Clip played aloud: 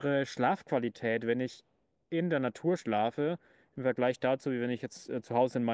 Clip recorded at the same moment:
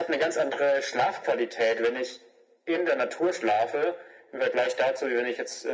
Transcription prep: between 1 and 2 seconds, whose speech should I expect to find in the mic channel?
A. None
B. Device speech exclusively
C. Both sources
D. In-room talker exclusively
B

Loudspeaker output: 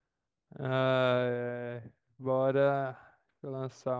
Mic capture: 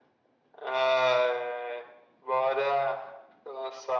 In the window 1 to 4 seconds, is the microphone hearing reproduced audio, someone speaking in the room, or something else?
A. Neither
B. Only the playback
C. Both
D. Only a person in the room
B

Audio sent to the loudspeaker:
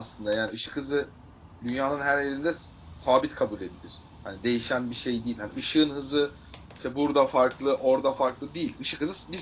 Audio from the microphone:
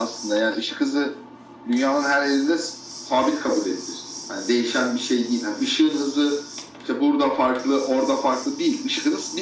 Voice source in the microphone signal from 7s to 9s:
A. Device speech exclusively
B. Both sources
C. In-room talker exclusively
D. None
A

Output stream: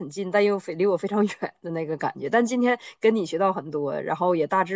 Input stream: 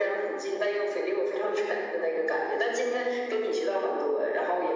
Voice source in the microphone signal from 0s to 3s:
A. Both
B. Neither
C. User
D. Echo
D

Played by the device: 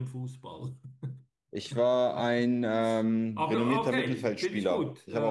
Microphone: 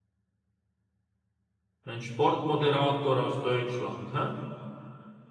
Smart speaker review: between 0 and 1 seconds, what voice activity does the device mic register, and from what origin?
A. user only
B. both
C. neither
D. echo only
C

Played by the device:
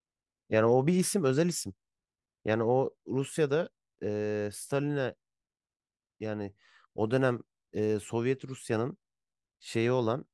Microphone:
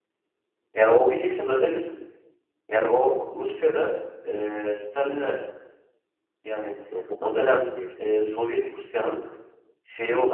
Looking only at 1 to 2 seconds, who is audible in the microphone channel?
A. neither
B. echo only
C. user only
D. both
B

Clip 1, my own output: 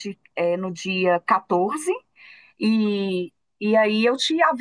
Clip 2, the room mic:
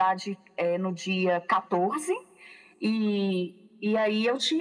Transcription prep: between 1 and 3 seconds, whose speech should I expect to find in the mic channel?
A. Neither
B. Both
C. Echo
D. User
C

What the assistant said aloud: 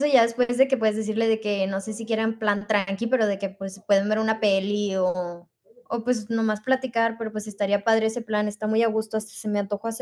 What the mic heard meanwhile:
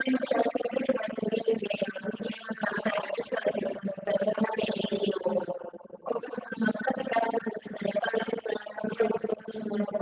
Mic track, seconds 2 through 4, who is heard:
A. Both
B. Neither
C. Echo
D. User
C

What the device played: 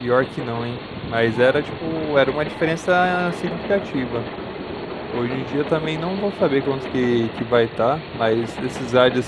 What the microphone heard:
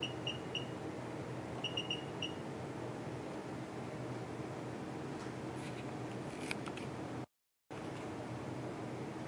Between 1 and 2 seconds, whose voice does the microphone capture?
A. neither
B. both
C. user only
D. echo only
A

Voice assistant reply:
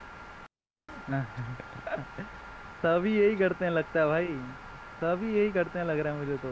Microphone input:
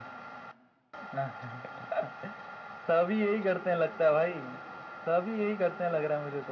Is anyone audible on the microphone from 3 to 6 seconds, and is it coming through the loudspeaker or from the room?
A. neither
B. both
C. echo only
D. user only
C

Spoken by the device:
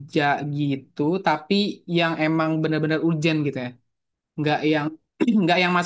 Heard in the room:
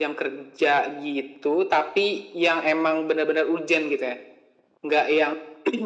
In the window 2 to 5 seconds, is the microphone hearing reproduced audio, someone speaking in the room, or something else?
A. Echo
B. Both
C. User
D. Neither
A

